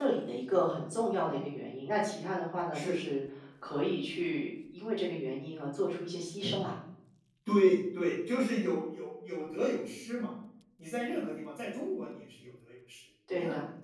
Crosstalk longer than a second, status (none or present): none